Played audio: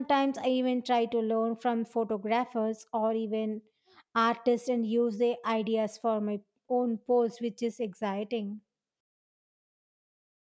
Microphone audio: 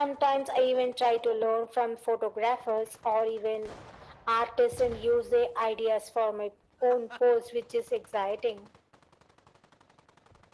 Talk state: echo only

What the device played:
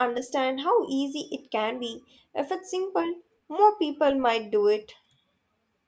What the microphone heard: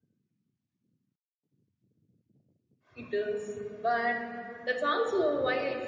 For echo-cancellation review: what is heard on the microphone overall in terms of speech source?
user only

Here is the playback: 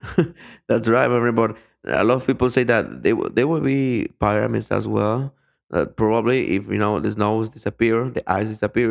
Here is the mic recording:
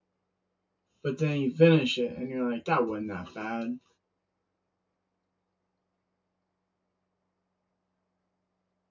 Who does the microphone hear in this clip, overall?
user only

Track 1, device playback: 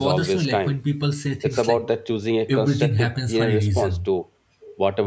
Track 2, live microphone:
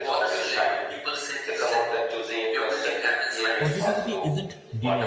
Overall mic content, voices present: both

